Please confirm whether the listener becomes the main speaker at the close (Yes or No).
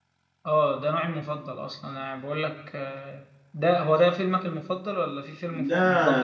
Yes